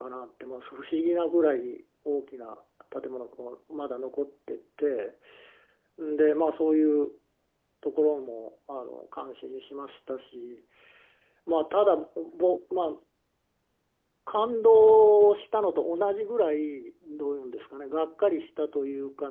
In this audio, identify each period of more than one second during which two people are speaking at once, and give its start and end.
none

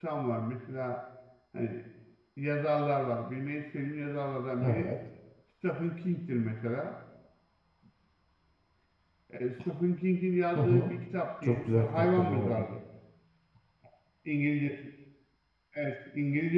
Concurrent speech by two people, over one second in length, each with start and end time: 11.4-12.7

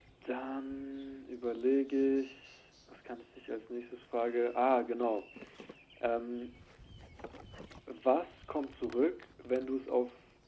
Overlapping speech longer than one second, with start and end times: none

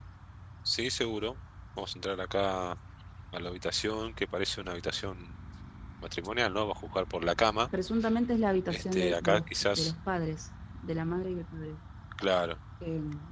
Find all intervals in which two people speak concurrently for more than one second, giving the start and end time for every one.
8.7-9.9

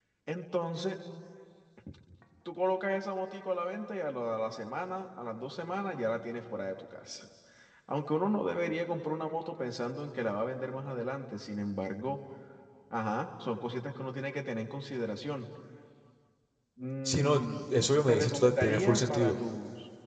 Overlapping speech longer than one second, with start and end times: 18.1-19.4

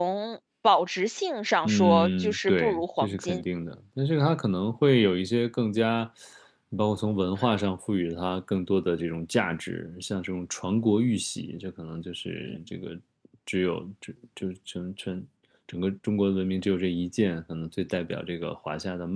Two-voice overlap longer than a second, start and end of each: 1.6-3.4

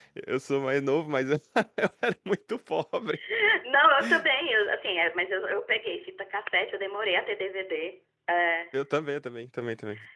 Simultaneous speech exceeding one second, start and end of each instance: none

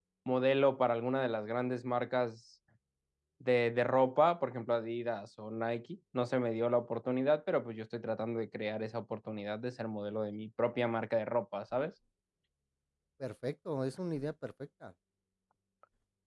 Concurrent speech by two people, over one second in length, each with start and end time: none

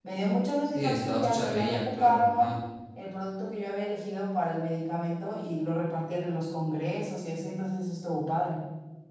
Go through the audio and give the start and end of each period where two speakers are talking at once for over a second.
0.6-2.6

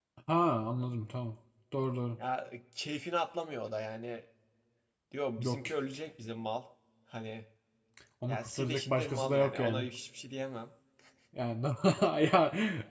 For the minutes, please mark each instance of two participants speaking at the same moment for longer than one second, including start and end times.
8.3-9.9

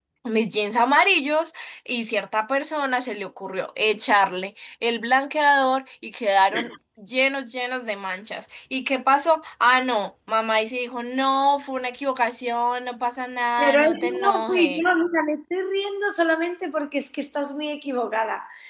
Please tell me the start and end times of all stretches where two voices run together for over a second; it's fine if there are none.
13.6-14.8

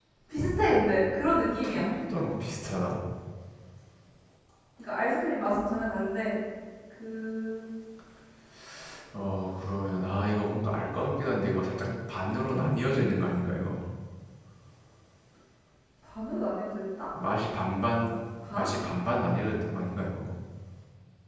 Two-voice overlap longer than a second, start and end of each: none

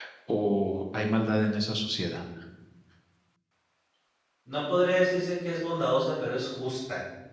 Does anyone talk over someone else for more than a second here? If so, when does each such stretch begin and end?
none

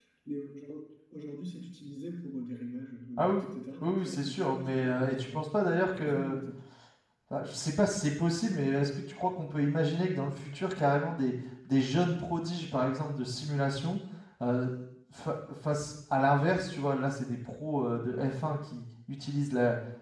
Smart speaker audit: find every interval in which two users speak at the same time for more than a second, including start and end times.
3.8-5.4

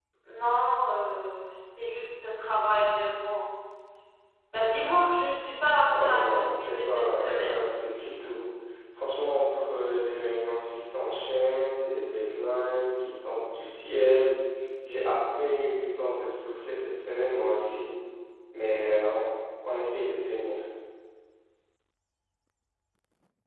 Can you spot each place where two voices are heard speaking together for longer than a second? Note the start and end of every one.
5.9-7.6

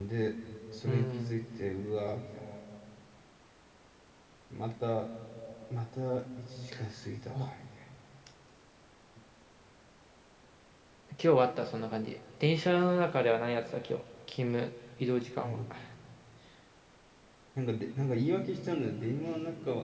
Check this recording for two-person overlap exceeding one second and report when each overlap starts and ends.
none

